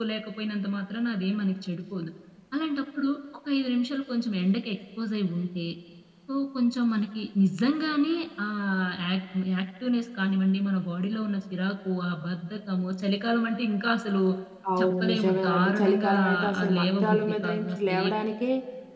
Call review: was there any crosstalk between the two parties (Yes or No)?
Yes